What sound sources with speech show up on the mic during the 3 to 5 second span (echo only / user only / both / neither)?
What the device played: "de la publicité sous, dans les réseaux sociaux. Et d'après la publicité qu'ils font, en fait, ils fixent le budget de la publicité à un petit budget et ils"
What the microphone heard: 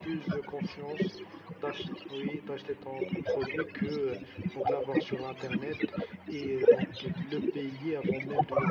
both